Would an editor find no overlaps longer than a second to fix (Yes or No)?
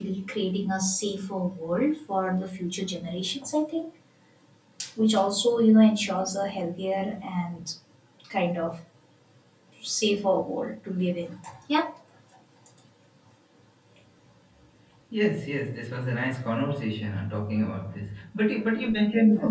Yes